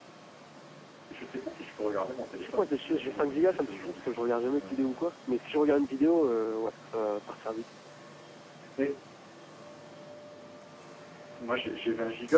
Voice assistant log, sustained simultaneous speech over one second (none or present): present